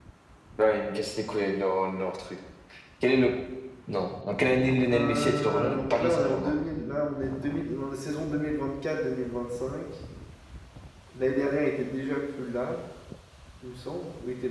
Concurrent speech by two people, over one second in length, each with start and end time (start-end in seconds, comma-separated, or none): 4.9-6.5